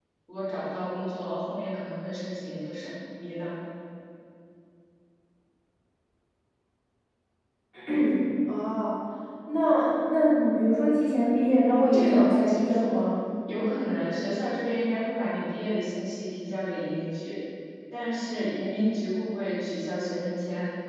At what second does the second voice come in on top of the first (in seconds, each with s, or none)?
11.7 s